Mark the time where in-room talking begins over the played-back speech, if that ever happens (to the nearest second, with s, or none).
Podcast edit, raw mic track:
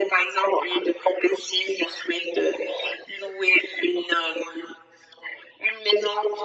none